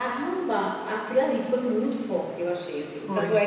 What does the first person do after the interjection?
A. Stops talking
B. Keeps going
B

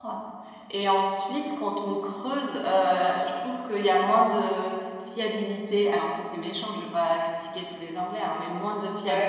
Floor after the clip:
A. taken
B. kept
B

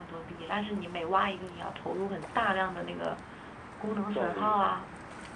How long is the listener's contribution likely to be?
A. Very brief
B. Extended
A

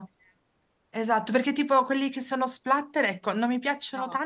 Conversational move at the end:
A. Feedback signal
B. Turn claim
A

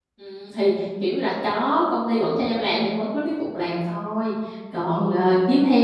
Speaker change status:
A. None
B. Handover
A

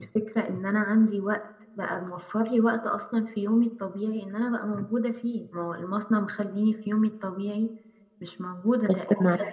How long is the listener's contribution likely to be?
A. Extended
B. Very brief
B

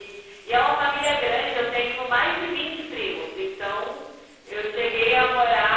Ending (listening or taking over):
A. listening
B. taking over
A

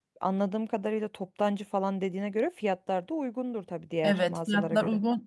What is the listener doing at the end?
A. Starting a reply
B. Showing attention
A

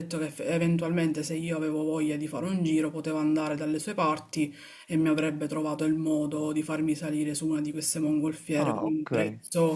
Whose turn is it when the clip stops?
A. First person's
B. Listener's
A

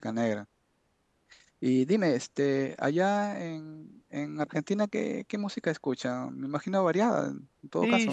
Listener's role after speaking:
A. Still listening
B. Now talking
B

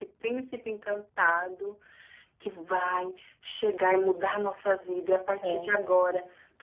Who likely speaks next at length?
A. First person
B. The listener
A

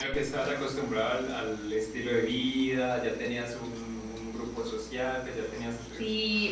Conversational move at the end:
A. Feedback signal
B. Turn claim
B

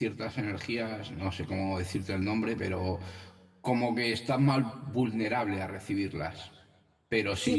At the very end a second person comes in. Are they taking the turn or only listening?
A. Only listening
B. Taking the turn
A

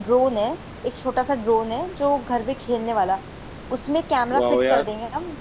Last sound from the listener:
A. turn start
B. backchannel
B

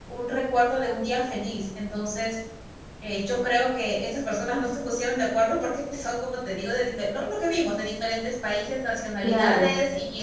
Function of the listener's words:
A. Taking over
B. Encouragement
B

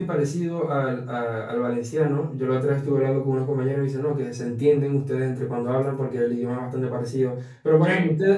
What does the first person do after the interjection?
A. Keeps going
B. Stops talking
A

